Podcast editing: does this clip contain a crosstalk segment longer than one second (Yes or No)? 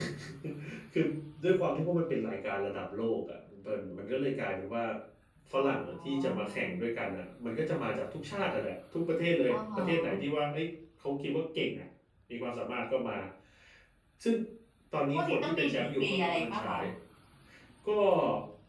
Yes